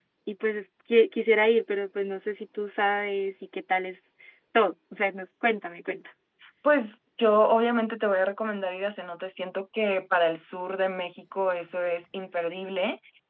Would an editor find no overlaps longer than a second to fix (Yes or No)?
Yes